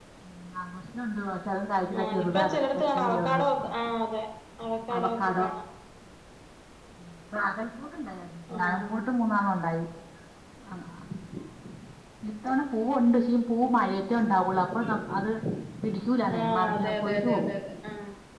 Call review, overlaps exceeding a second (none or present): present